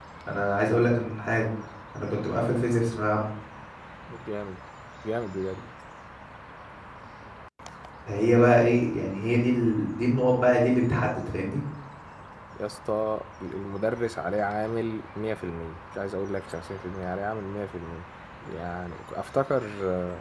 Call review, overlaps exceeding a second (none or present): none